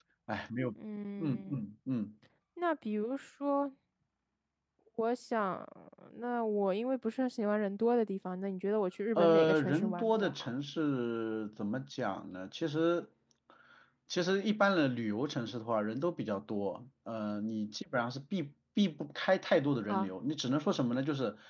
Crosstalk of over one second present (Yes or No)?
Yes